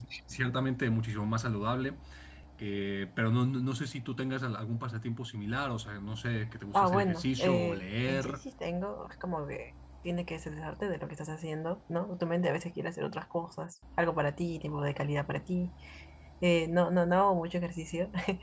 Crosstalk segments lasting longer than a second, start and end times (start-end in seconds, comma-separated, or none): 6.7-8.4